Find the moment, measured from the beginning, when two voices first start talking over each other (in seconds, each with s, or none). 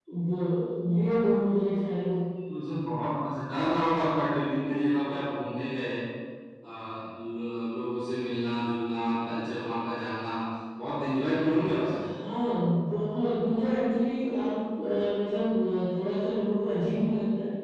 none